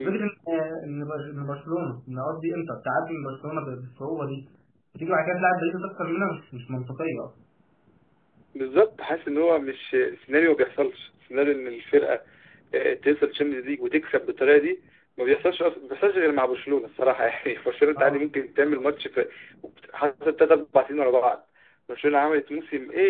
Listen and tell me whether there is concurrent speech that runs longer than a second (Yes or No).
No